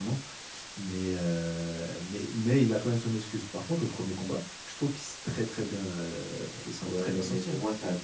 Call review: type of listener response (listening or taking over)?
taking over